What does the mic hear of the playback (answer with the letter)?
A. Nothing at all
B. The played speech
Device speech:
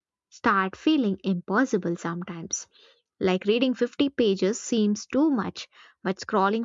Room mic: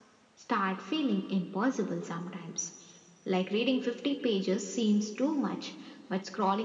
B